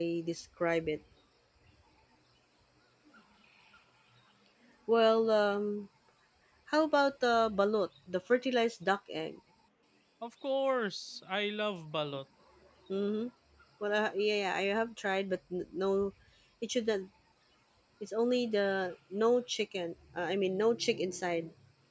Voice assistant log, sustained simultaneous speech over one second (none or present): none